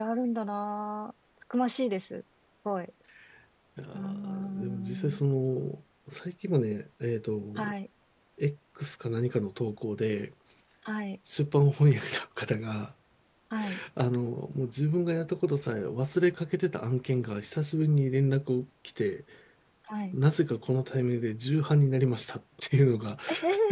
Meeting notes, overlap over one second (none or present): present